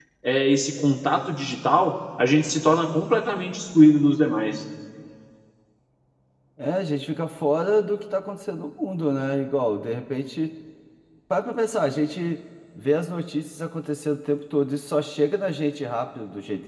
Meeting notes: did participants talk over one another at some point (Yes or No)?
No